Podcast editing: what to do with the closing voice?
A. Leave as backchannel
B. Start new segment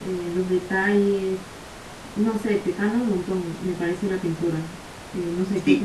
B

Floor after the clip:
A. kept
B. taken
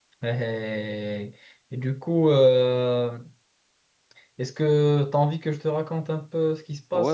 B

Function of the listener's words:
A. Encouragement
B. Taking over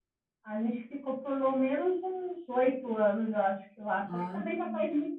A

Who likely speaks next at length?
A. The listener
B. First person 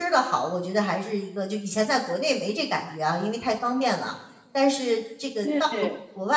B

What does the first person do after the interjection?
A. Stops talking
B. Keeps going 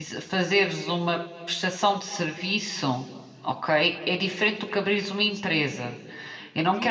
A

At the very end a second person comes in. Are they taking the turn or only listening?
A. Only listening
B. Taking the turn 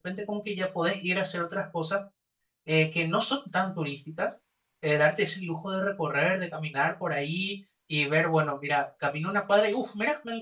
A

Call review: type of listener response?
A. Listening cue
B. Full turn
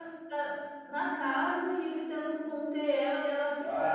B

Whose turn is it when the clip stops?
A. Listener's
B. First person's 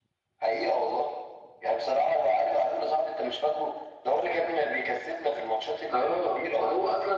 A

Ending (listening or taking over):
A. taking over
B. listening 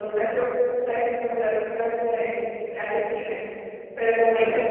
B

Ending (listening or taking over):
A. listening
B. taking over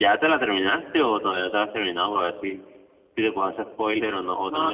B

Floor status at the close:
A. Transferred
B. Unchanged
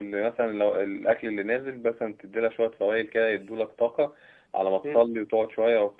B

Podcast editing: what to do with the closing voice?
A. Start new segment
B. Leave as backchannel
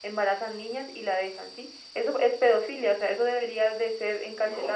A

